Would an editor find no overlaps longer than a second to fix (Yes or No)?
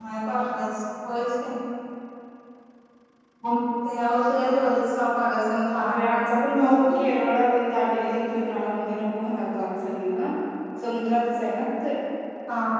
Yes